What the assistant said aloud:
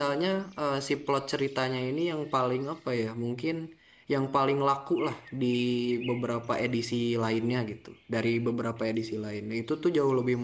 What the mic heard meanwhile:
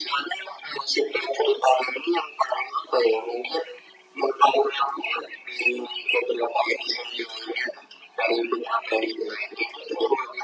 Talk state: echo only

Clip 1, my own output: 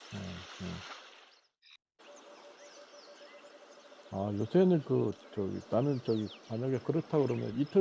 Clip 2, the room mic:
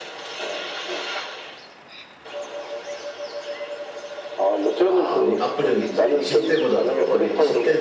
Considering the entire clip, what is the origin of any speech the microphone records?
both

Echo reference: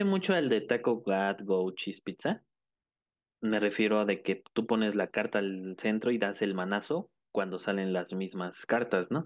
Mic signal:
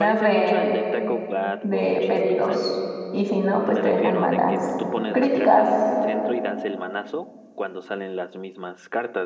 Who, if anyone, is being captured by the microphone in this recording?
both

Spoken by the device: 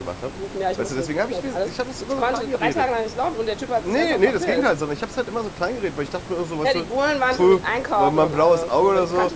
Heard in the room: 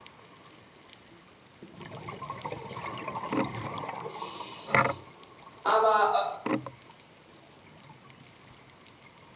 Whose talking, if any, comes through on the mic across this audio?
user only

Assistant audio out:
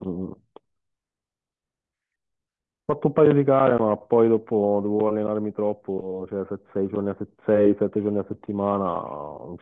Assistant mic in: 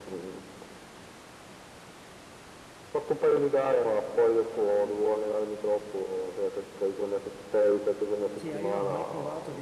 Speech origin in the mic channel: both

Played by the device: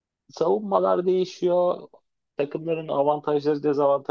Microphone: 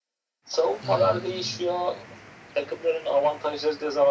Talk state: both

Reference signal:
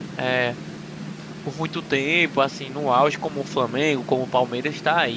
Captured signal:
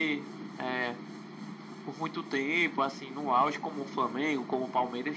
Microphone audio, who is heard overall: echo only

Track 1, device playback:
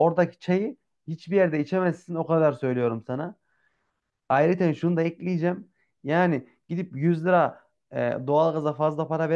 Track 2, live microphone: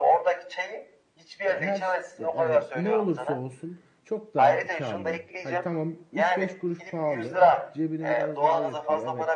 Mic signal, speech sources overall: both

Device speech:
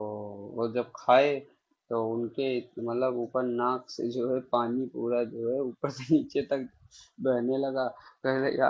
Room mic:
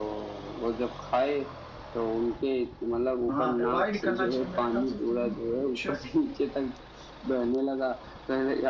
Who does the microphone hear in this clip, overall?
both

